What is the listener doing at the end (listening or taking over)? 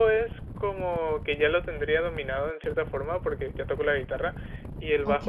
listening